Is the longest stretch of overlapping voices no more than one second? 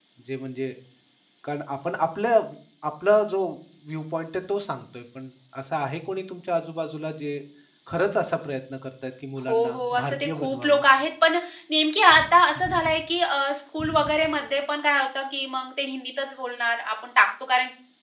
No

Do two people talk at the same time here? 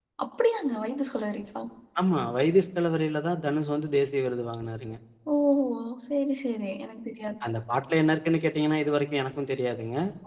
No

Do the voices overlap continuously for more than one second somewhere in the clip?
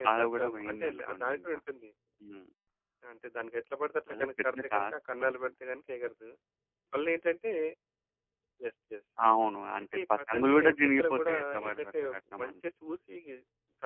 Yes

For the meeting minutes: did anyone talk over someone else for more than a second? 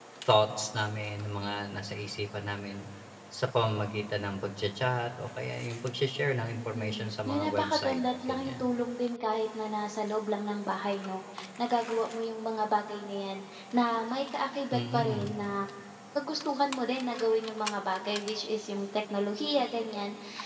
Yes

